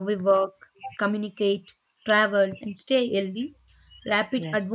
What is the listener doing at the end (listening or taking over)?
listening